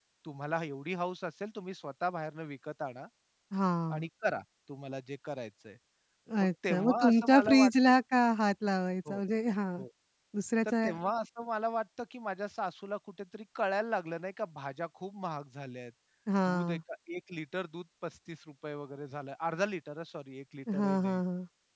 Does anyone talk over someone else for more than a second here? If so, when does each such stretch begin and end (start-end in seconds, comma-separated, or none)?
6.4-7.9